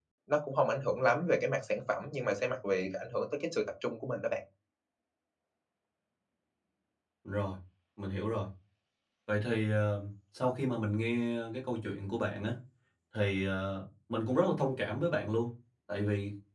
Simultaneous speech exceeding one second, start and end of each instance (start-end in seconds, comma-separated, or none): none